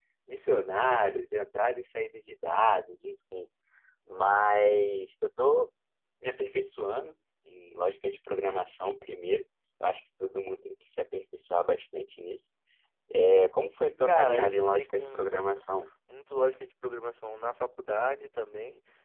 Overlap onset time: 14.1 s

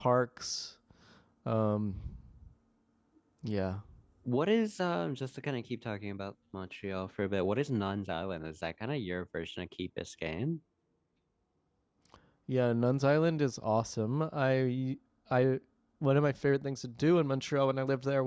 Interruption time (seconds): none

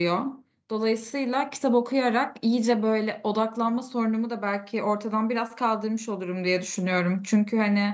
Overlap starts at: none

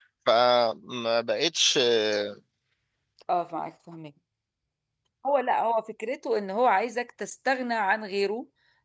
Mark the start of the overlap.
none

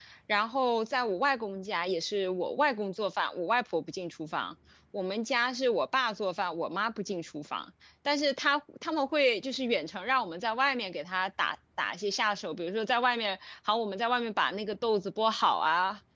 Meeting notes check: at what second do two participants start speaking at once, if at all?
none

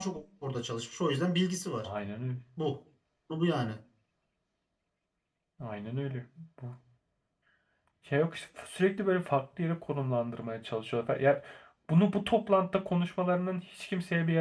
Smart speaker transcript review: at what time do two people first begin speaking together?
none

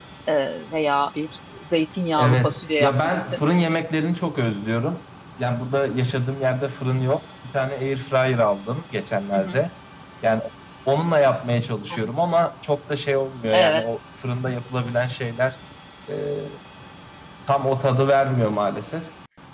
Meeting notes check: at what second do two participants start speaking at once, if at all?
2.2 s

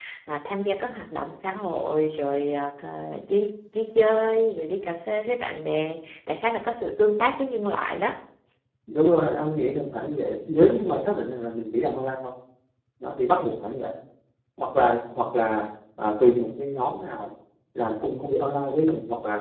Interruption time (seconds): none

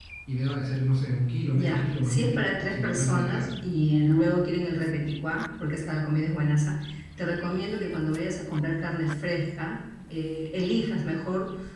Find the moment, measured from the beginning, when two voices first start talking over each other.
1.5 s

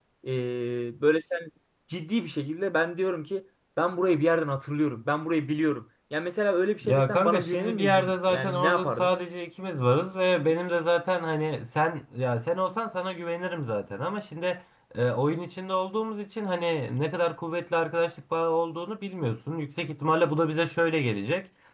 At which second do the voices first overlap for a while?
6.8 s

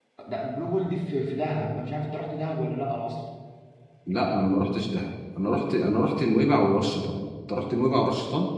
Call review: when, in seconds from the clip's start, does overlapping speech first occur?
none

